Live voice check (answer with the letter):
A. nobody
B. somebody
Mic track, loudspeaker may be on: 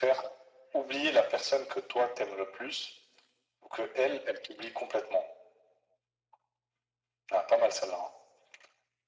A